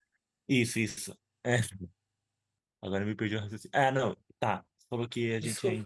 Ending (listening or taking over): listening